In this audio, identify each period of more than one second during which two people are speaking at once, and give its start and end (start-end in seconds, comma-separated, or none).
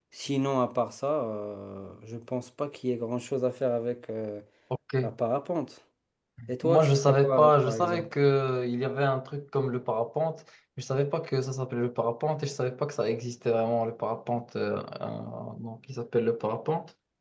6.6-8.1